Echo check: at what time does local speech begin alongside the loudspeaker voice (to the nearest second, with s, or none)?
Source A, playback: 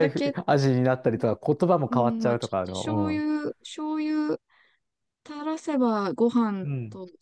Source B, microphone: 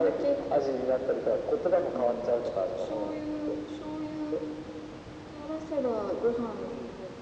none